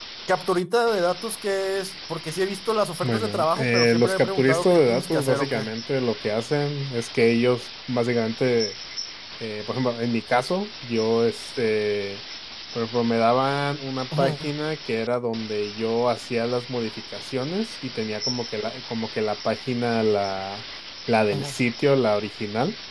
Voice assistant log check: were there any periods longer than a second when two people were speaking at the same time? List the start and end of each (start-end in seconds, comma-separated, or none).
3.0-5.7